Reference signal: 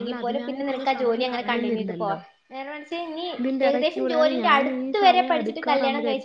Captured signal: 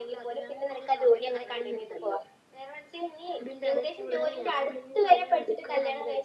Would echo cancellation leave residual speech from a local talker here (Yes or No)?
No